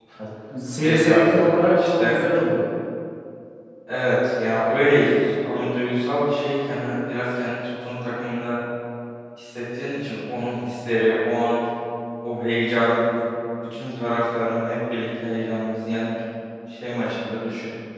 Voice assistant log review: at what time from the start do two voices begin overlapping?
1 s

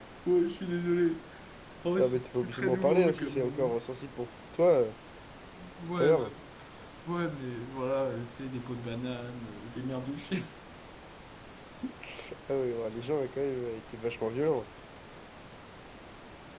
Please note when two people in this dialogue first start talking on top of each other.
2 s

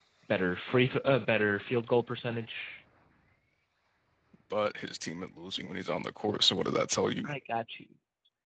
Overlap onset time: none

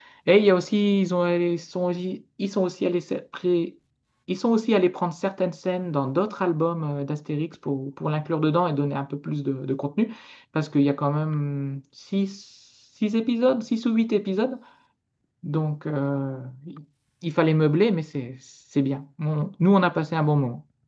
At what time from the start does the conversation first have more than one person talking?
none

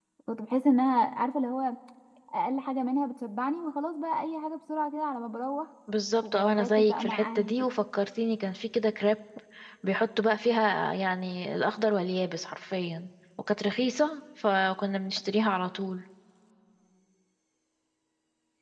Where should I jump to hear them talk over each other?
6 s

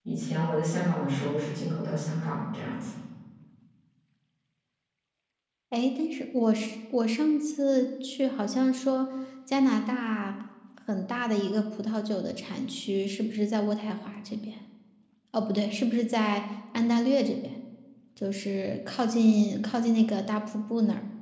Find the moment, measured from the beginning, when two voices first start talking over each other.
none

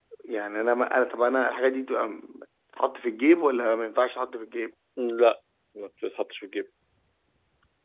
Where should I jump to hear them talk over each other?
none

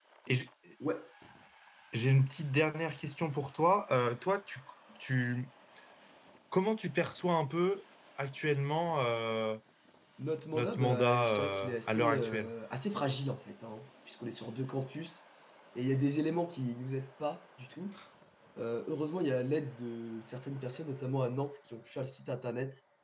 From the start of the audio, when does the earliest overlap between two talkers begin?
11 s

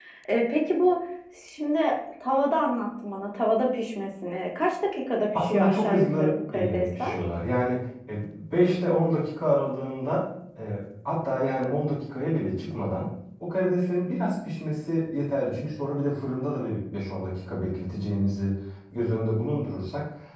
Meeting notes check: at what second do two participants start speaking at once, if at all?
5 s

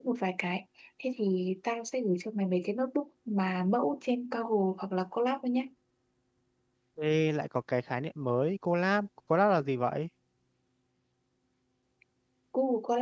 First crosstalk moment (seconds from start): none

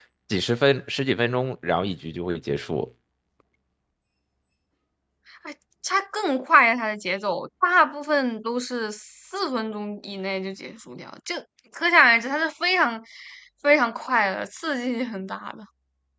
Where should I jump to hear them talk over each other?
none

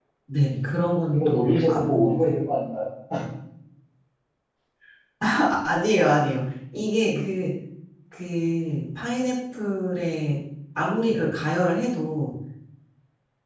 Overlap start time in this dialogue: 1 s

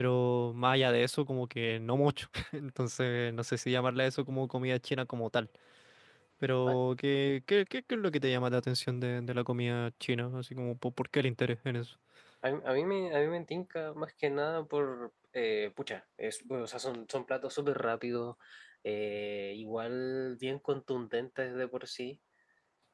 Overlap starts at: none

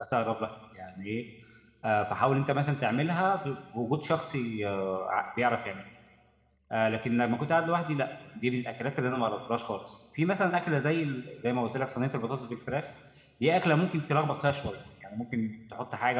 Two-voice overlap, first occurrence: none

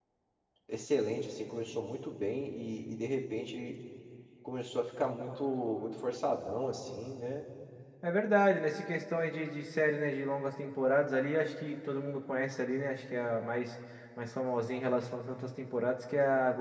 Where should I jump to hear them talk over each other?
none

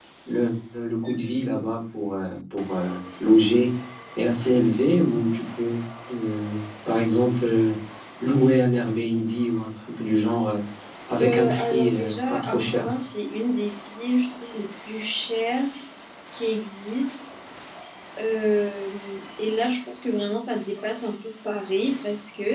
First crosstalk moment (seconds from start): 11 s

